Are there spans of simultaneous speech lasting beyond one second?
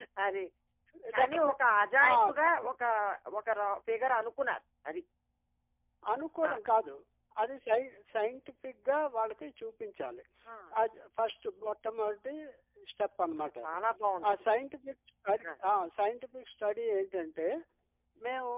No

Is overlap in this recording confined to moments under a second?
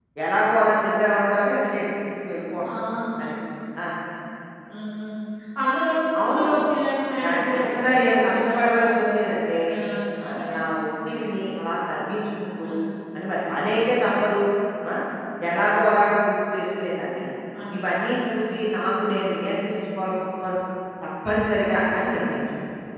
No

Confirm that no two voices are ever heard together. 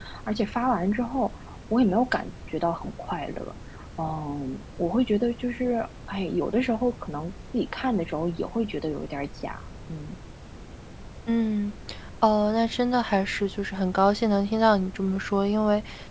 Yes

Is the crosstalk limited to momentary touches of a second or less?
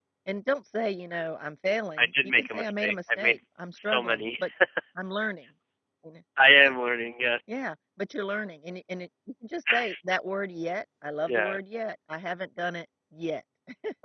No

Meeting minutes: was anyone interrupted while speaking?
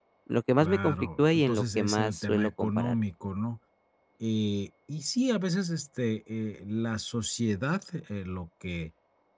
Yes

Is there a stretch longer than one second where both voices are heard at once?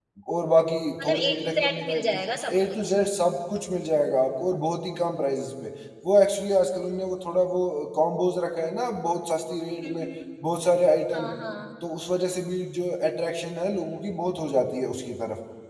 Yes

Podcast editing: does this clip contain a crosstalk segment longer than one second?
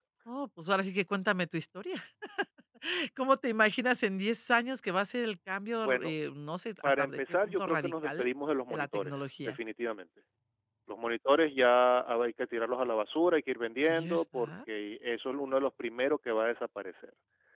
Yes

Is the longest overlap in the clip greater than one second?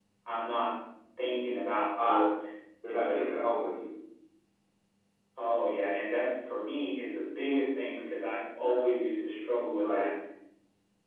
No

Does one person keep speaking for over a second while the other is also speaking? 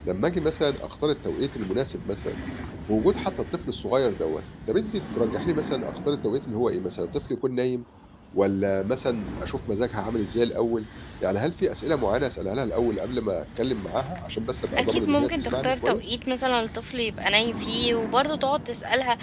Yes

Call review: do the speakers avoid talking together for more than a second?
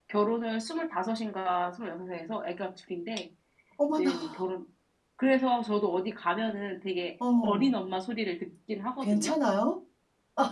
Yes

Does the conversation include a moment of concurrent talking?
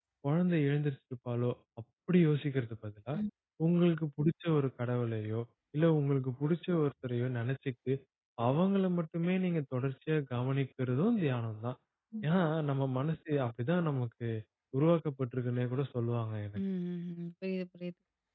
No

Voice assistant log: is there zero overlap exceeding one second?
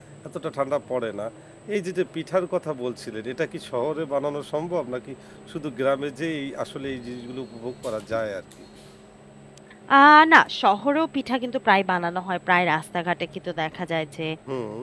Yes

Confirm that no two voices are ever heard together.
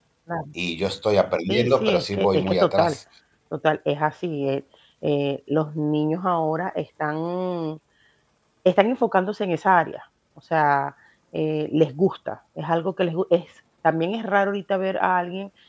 No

